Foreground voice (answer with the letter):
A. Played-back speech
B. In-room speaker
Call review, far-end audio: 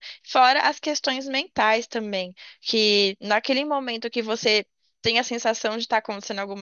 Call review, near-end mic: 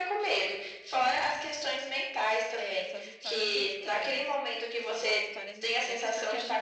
A